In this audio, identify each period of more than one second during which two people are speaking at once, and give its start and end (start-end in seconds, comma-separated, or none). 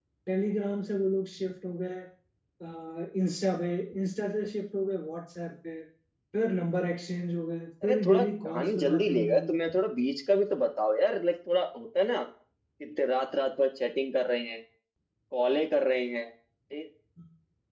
7.8-9.7